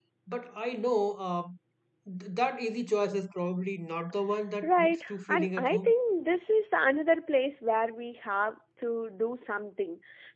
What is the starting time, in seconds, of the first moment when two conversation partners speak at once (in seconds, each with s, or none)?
4.6 s